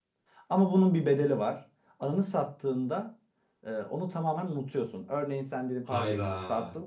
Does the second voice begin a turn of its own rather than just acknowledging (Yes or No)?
No